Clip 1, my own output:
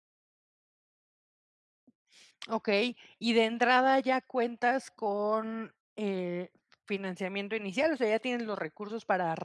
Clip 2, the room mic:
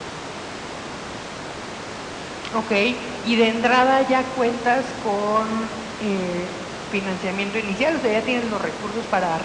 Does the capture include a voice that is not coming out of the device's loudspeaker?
No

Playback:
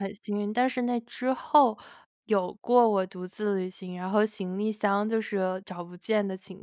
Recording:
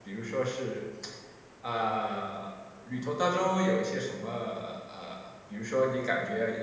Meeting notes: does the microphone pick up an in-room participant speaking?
Yes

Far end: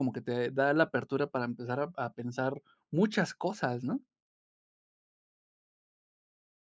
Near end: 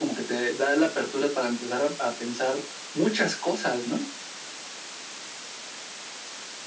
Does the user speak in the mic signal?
No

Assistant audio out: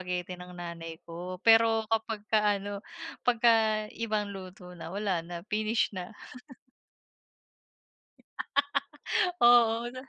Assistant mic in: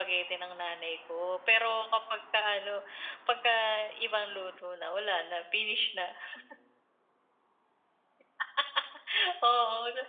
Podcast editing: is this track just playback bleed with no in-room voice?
Yes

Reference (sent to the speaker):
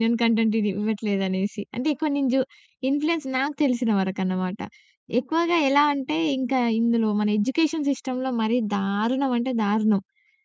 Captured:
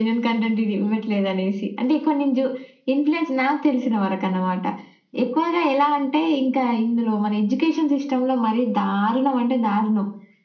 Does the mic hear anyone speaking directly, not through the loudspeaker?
No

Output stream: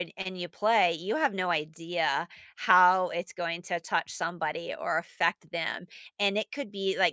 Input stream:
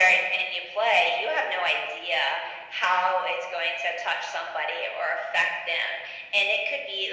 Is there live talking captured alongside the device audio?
No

